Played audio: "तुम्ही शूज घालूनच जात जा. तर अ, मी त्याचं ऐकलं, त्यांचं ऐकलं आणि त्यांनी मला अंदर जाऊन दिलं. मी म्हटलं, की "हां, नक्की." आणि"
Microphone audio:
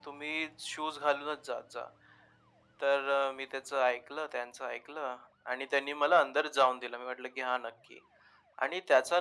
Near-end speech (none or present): none